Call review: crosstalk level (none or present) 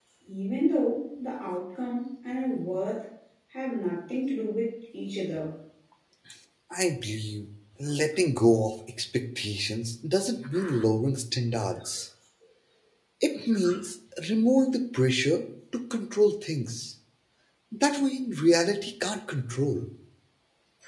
none